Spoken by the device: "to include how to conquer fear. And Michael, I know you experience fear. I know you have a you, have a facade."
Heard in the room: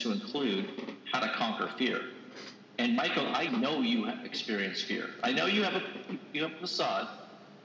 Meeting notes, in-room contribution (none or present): none